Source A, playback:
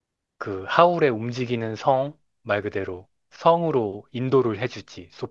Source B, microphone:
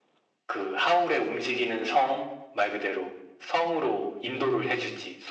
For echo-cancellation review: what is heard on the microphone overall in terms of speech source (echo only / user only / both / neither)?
both